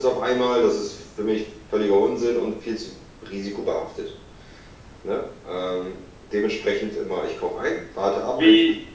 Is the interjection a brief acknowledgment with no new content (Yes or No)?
No